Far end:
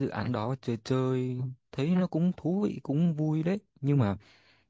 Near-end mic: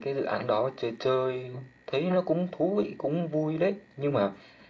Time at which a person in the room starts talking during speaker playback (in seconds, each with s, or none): none